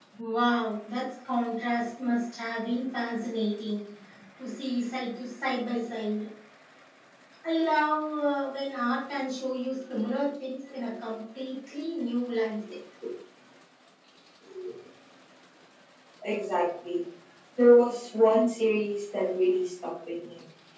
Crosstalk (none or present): none